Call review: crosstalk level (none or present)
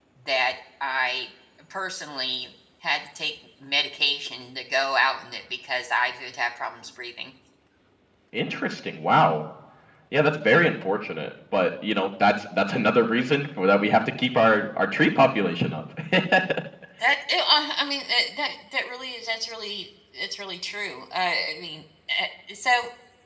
none